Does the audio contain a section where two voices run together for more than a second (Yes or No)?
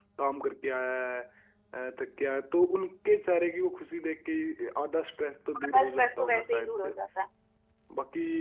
Yes